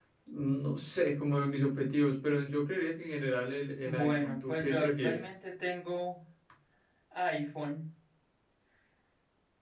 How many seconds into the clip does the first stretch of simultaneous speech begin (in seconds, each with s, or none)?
3.9 s